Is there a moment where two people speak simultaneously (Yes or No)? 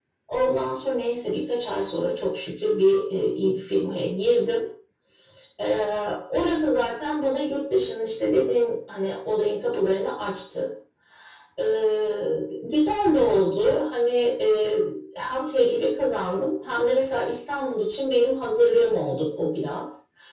No